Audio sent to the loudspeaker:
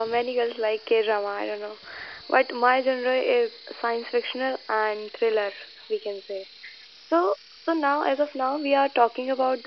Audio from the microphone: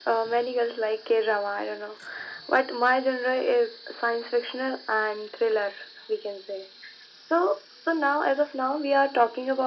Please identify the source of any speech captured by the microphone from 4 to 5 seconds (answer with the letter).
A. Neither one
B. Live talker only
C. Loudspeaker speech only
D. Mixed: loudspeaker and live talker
C